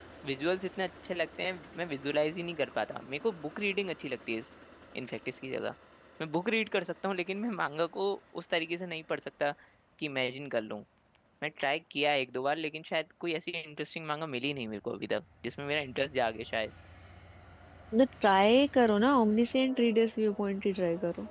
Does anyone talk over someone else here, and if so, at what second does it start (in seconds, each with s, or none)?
none